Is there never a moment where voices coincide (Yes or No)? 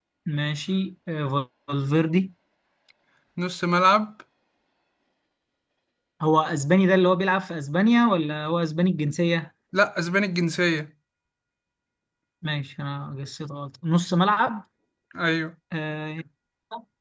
Yes